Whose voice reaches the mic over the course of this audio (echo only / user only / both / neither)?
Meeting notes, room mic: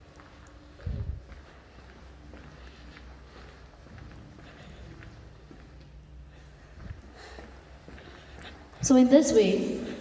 user only